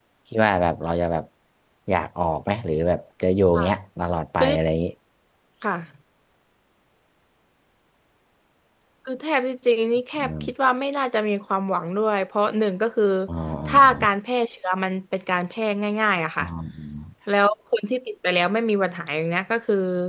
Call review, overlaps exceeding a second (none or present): none